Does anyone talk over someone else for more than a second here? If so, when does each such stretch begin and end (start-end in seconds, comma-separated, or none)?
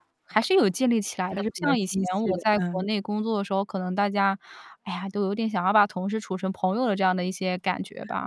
1.4-2.8